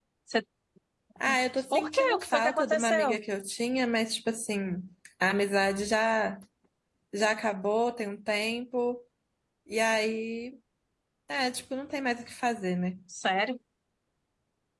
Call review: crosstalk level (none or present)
present